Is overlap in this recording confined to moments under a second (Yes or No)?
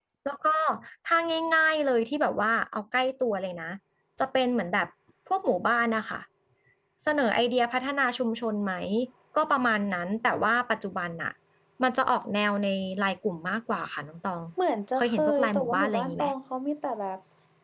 No